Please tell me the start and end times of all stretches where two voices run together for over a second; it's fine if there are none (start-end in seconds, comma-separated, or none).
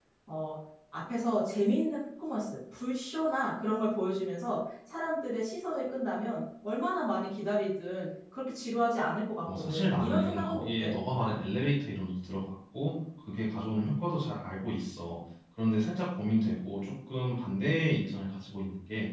9.5-10.9